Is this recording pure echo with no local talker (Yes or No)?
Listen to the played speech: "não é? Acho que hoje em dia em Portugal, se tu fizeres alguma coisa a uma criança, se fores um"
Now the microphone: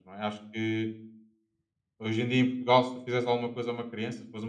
Yes